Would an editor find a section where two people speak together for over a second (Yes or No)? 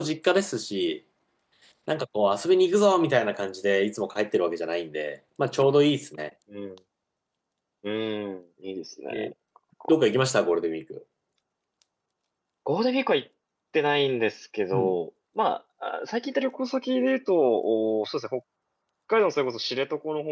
No